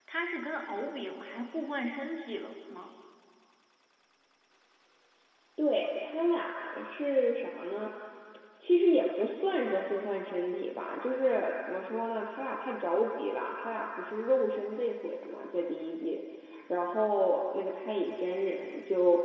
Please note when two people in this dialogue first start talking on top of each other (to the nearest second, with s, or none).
none